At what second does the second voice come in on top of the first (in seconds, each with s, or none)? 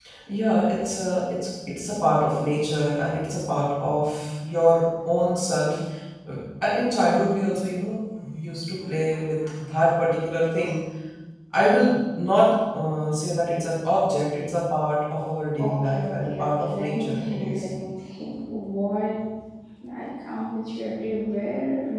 15.6 s